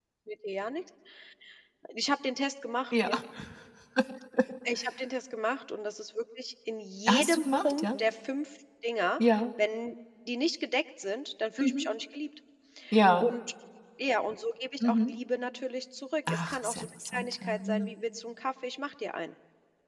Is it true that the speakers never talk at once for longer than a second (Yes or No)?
No